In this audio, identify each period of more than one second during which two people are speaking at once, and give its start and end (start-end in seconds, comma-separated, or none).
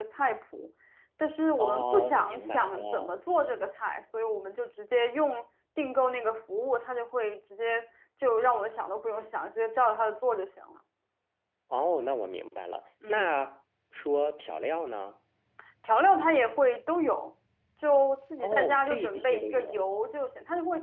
1.6-3.2, 18.4-19.8